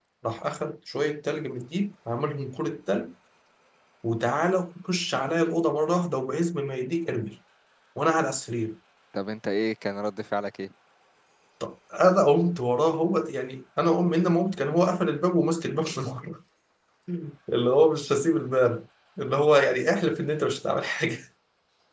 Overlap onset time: none

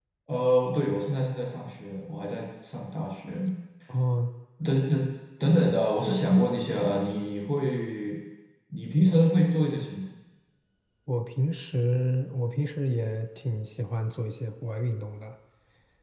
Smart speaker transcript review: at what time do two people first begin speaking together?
none

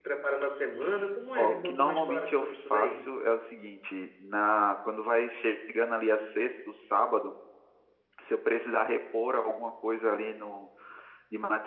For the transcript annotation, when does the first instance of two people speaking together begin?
1 s

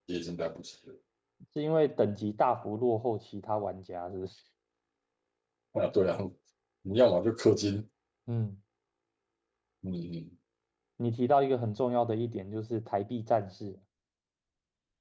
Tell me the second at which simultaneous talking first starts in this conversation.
none

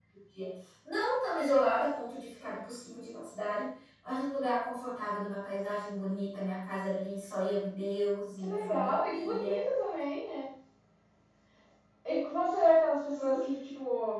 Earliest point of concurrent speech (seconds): 8 s

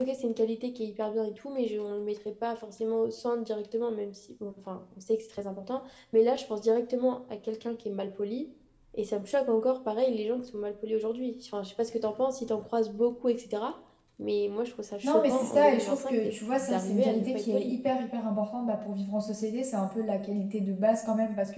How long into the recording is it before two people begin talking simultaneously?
15 s

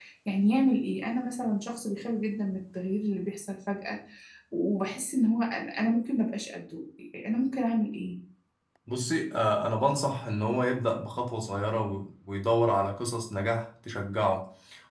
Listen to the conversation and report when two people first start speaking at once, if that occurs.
none

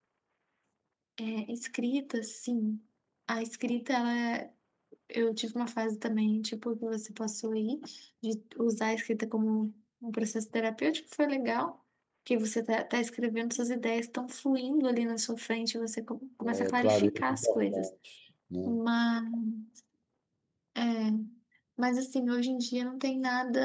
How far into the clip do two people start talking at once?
16 s

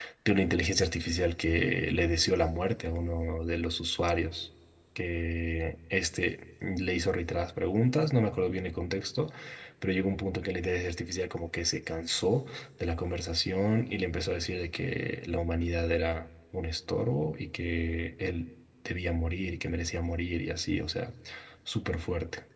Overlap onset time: none

